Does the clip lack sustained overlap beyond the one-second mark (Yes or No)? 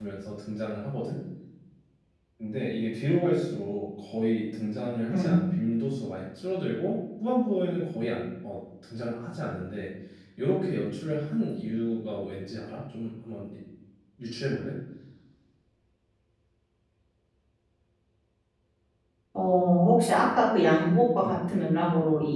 Yes